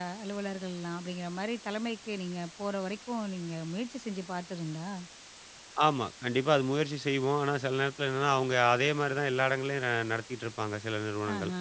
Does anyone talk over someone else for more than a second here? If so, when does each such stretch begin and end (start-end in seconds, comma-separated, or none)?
none